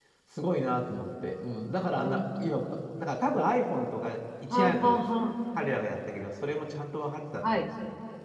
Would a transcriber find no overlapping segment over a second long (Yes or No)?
Yes